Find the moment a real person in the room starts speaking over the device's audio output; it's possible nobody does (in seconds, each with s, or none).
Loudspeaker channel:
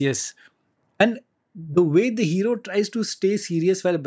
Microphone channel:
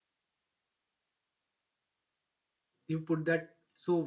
2.9 s